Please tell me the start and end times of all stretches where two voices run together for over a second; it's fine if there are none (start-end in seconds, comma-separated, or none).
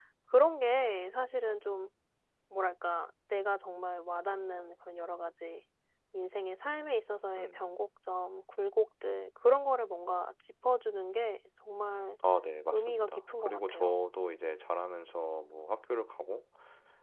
12.7-14.0